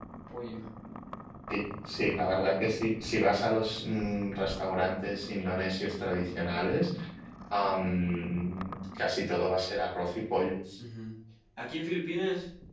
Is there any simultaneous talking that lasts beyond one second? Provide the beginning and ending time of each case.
none

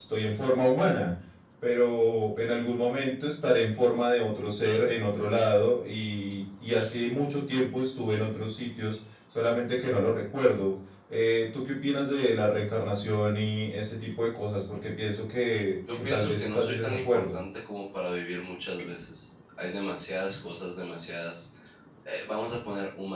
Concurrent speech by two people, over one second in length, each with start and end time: 15.9-17.4

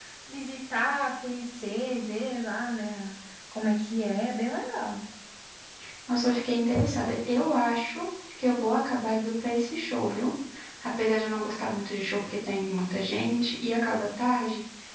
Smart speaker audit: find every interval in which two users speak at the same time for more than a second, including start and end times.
none

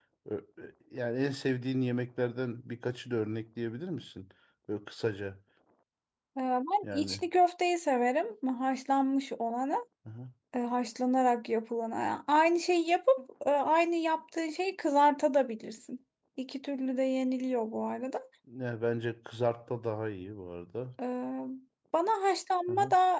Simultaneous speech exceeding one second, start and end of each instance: none

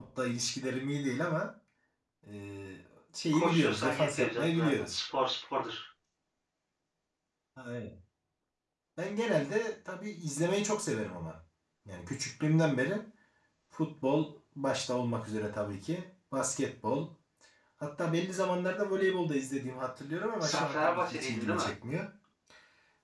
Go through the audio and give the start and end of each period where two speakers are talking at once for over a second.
3.3-5.0, 20.4-21.7

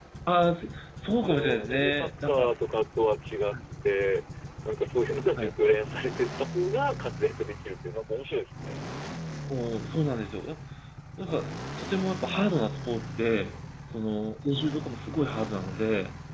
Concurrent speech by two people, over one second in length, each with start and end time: 1.3-2.5

